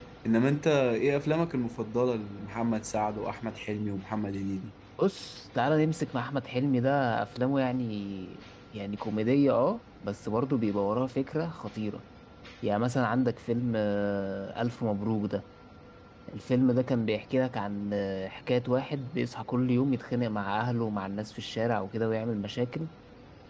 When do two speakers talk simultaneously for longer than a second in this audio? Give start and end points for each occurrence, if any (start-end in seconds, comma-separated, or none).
none